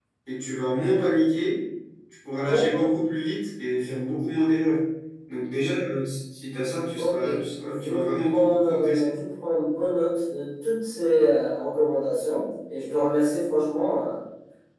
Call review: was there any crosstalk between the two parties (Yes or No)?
Yes